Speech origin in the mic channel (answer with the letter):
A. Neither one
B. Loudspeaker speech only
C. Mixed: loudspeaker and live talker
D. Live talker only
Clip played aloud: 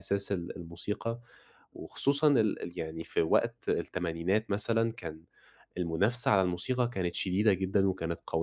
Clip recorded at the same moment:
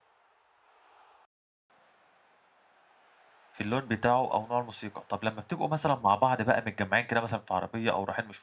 D